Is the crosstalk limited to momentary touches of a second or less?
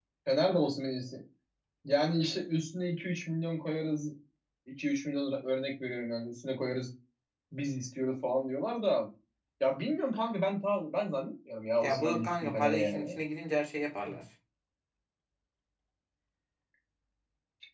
No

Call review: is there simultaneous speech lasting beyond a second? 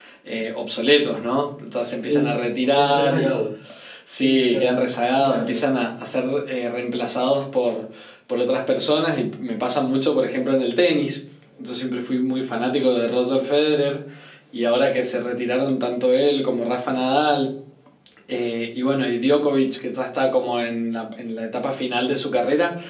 Yes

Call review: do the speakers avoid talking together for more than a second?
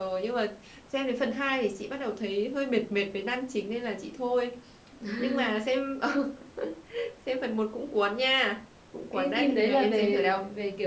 No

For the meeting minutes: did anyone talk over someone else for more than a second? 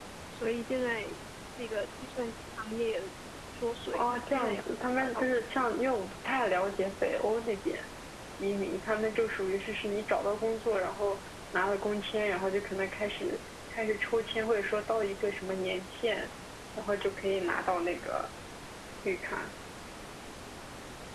Yes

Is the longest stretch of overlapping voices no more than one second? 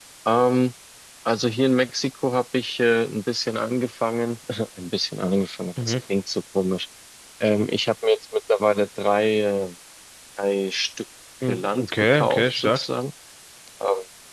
No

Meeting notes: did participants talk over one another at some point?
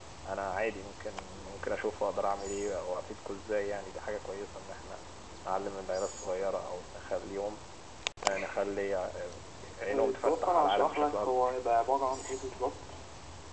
Yes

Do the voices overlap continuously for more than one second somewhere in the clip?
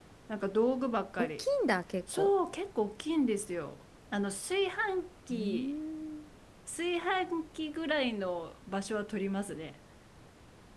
No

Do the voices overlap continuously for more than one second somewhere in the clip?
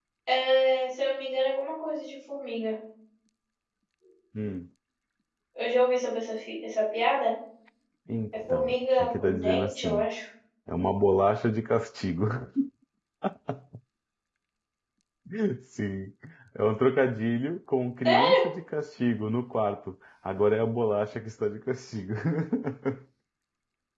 Yes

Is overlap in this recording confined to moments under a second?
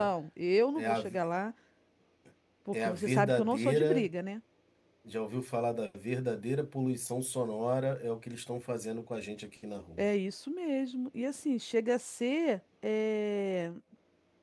No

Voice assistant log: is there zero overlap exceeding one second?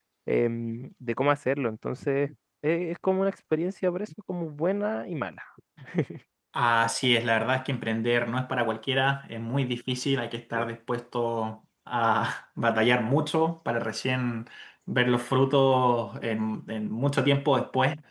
Yes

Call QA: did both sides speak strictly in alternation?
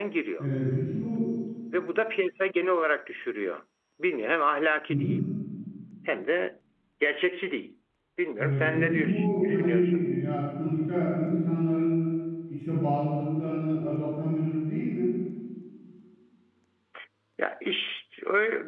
No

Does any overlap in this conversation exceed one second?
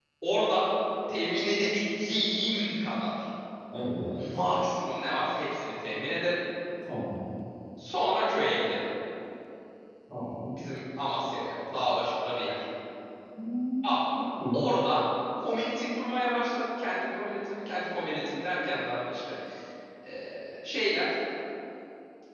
No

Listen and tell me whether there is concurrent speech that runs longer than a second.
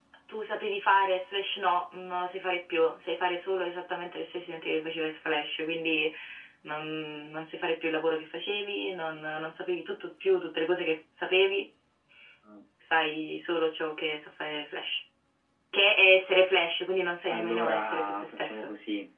Yes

